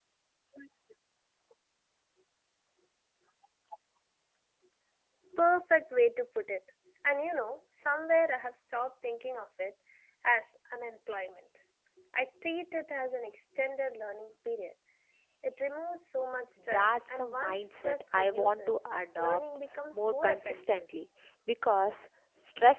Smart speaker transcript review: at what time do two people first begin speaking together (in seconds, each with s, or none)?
16.6 s